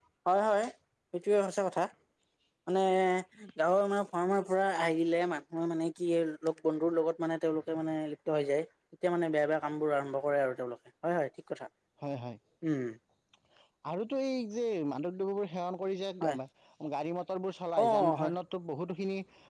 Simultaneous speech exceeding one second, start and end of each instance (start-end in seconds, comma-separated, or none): none